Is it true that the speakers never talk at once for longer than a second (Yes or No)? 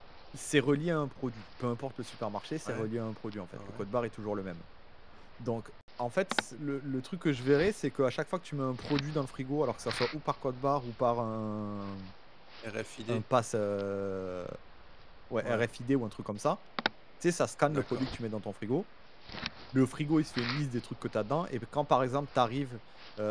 Yes